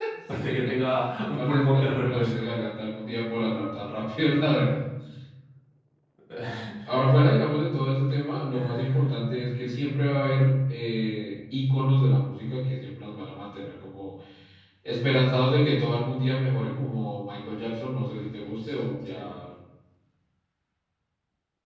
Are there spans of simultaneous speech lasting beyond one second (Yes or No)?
Yes